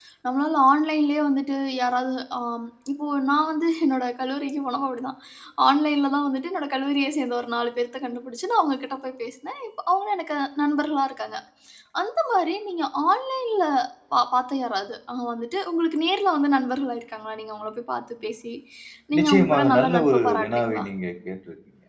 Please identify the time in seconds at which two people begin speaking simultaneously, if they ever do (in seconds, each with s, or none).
19.2 s